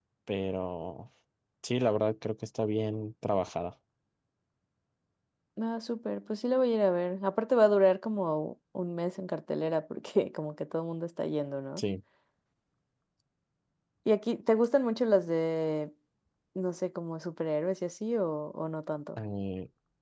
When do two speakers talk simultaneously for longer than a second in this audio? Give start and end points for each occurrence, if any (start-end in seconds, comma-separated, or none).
none